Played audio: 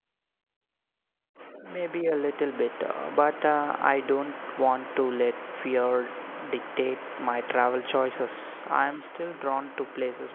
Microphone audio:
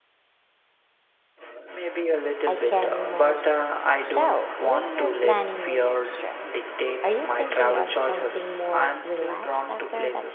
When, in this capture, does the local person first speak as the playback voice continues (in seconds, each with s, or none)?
2.4 s